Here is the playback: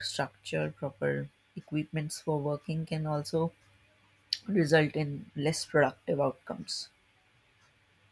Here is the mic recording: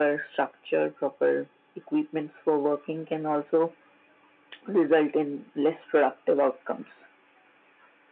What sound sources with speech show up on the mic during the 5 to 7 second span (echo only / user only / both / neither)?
echo only